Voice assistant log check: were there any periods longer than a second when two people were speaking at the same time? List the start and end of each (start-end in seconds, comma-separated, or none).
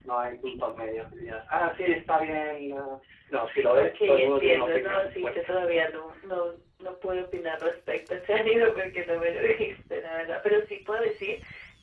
3.7-5.5